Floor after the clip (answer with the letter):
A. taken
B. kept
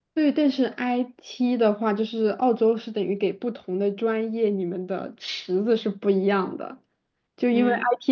B